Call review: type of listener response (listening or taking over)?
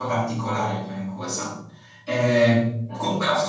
listening